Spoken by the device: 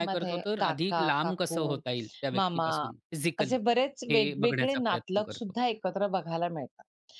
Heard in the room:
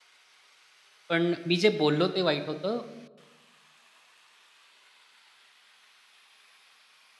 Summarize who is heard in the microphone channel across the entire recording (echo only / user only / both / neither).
user only